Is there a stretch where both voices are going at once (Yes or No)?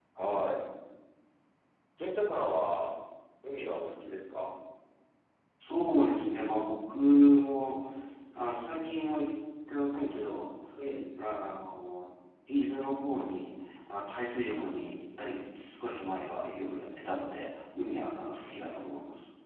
No